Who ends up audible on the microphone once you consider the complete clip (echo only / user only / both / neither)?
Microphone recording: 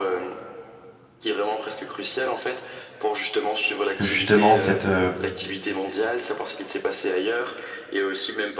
both